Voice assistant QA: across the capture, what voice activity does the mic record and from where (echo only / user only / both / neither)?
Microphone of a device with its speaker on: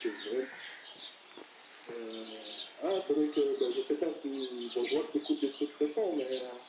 echo only